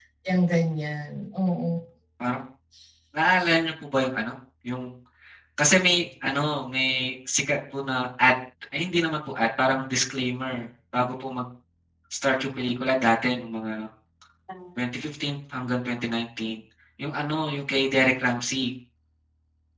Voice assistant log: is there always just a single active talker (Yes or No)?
Yes